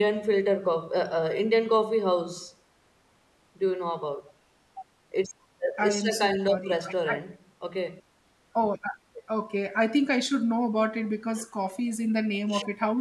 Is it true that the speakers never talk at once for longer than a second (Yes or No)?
No